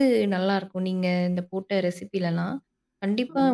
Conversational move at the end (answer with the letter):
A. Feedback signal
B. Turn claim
A